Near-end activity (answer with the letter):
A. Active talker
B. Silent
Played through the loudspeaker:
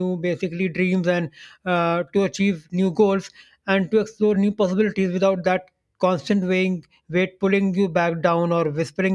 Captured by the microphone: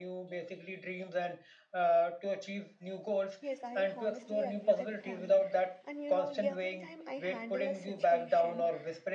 A